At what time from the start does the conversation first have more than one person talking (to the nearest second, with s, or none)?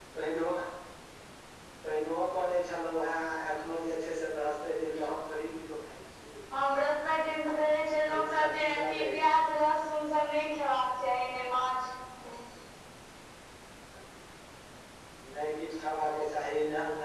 8 s